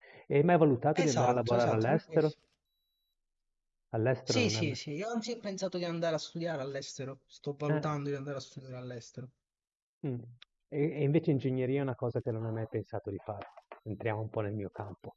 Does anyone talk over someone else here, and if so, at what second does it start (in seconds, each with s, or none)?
0.9 s